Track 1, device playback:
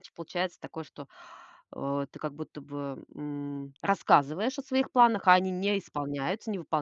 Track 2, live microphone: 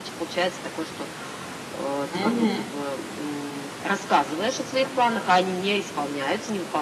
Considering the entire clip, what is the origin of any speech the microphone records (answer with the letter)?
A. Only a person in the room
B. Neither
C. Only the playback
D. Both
D